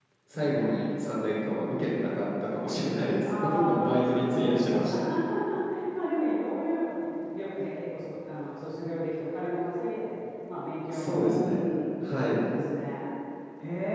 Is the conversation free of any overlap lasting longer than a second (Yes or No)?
No